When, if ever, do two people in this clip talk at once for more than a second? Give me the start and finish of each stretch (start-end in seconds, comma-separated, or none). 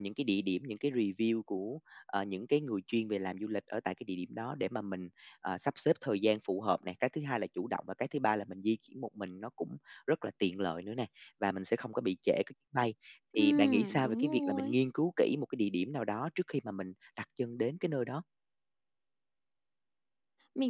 13.3-14.8